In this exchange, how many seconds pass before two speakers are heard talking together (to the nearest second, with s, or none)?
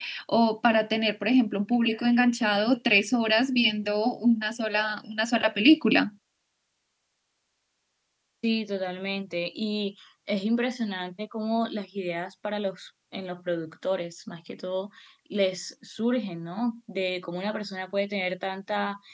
none